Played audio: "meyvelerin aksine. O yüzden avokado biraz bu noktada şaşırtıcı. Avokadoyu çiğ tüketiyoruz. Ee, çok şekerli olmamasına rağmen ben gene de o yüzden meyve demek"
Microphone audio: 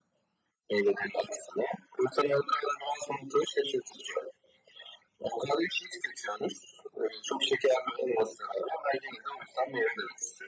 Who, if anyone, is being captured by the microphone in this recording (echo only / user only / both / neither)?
echo only